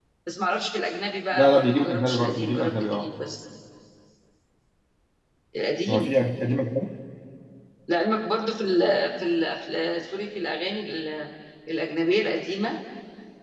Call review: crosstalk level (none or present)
present